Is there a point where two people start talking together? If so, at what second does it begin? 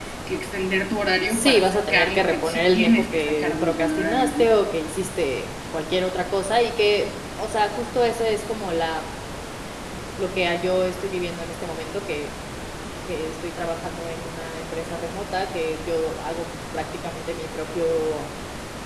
1.3 s

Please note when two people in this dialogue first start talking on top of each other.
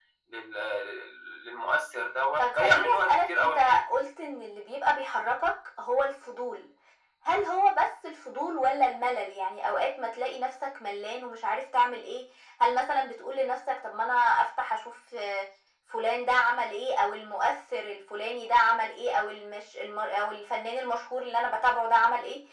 2.4 s

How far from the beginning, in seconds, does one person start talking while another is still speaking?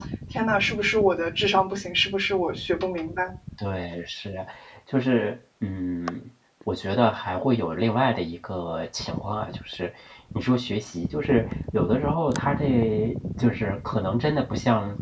none

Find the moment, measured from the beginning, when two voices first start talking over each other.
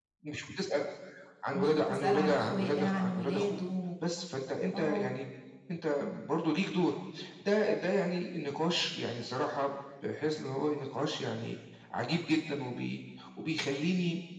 1.5 s

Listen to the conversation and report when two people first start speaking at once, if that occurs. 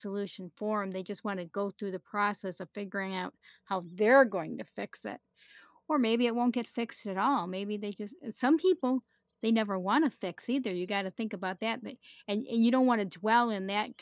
none

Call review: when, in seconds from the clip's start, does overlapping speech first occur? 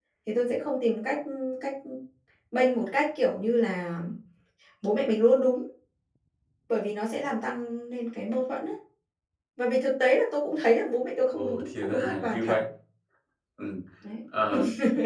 11.3 s

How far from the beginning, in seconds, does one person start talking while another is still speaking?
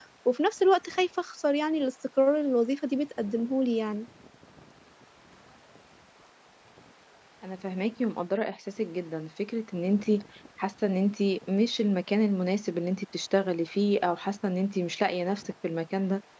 none

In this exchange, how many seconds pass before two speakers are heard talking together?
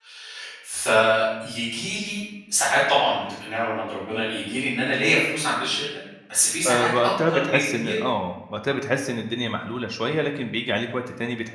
6.7 s

